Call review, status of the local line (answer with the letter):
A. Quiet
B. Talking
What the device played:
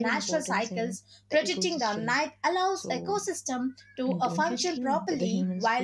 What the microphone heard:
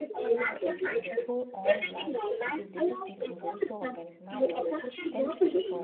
B